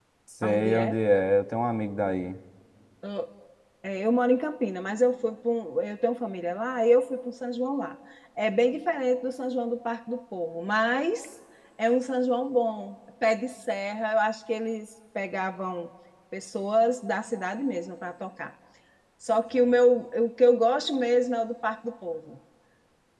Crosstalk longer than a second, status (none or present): none